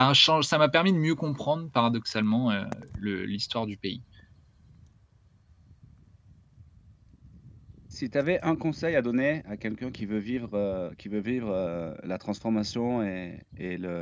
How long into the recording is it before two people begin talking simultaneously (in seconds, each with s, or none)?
none